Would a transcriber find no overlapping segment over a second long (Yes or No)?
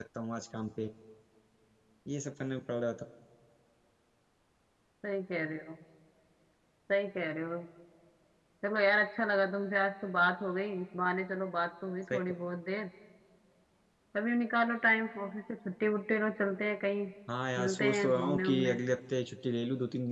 No